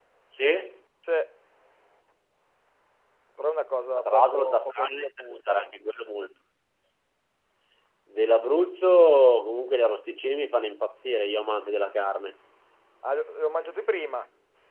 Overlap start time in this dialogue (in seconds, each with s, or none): 4.0 s